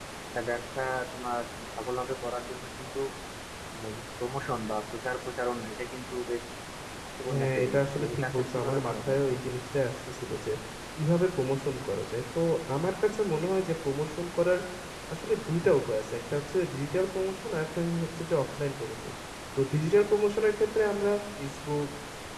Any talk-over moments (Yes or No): Yes